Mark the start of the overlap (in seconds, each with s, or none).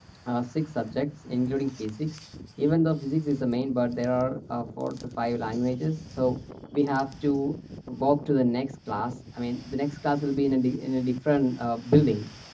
none